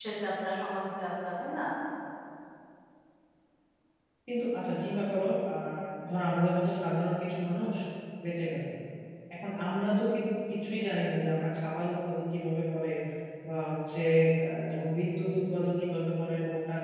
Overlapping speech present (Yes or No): No